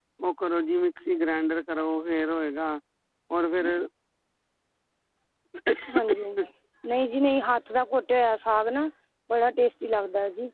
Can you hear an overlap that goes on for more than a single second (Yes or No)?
No